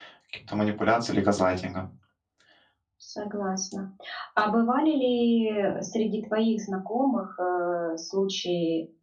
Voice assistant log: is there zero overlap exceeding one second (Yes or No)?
Yes